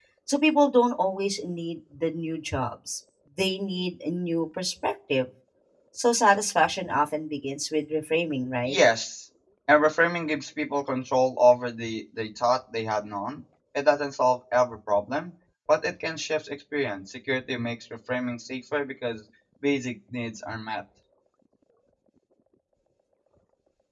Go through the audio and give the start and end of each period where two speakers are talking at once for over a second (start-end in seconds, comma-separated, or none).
none